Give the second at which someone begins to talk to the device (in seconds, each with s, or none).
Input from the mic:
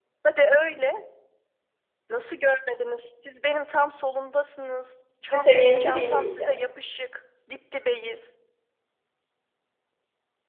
5.2 s